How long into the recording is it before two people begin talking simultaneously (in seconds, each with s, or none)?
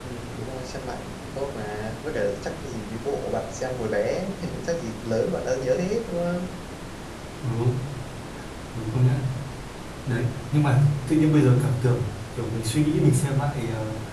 none